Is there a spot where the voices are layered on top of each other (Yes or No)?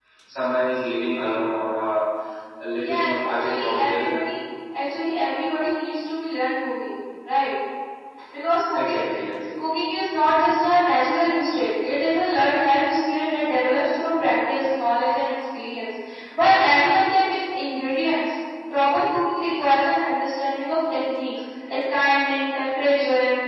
Yes